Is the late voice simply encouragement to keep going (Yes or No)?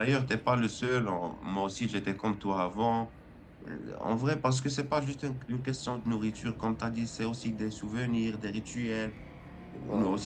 Yes